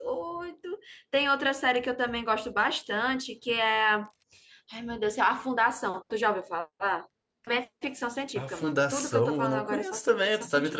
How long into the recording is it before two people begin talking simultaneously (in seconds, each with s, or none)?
8.3 s